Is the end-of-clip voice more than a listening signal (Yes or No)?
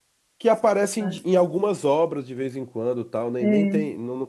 No